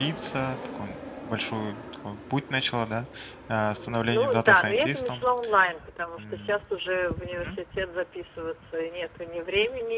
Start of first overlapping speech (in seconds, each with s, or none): 3.7 s